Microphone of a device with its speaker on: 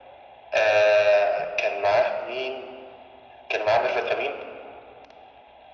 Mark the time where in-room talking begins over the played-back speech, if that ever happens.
none

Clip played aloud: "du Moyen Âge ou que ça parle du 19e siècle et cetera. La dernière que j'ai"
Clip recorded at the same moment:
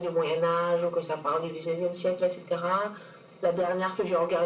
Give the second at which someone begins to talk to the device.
none

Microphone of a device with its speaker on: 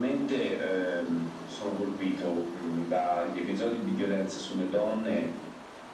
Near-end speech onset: none

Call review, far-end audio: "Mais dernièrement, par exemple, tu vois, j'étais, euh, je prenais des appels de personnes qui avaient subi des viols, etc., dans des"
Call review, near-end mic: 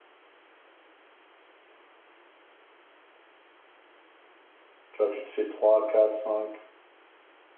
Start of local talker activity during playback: 4.9 s

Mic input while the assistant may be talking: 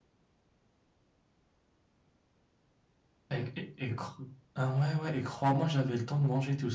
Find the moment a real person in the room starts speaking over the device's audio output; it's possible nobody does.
3.3 s

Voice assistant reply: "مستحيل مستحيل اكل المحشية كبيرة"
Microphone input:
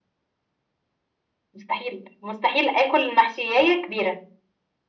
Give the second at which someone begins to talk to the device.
none

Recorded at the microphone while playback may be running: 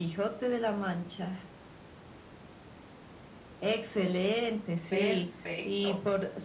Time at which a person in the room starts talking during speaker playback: 4.9 s

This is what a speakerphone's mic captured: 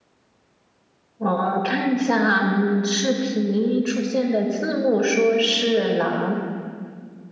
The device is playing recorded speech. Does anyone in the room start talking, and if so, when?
none

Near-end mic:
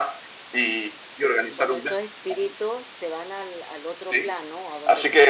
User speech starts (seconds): 1.5 s

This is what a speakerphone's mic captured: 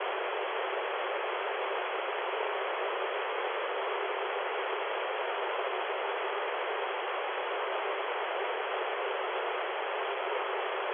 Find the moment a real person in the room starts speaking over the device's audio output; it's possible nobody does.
none

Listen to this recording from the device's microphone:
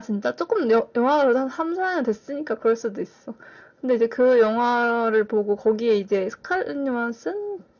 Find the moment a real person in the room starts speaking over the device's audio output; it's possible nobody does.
none

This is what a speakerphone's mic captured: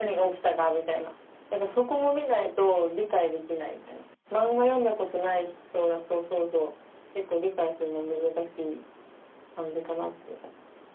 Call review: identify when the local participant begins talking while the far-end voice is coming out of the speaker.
none

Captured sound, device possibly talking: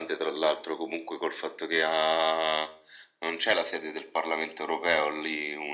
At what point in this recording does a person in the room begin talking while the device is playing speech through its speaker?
none

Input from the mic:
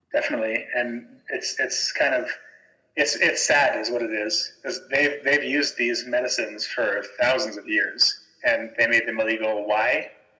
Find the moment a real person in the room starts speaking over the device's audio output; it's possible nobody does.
none

